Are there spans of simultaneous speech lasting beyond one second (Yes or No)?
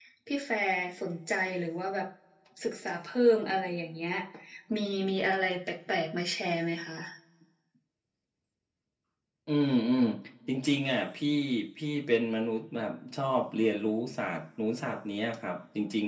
No